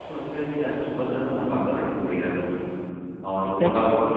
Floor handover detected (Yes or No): No